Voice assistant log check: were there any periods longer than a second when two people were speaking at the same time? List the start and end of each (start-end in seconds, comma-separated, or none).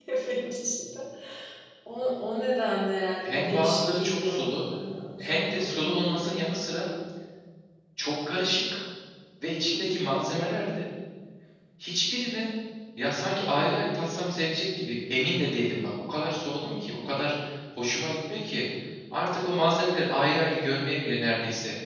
3.2-4.6, 5.2-6.5